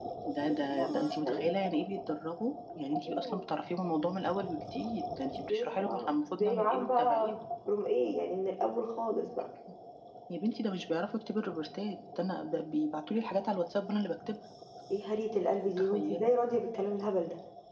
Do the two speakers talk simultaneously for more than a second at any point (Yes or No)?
Yes